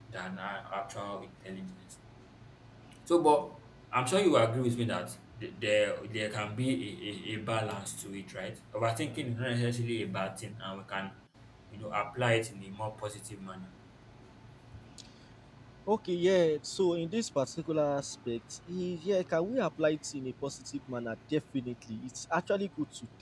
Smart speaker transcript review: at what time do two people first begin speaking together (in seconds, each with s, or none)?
none